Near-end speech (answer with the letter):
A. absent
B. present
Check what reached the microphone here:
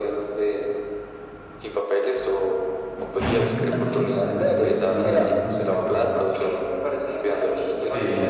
B